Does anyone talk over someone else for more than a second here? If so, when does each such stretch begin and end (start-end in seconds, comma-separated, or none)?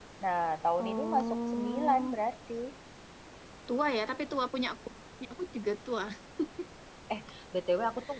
0.8-2.1